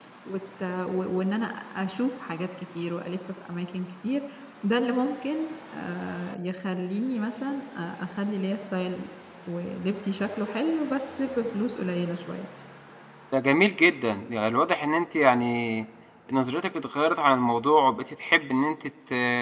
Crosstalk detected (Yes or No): No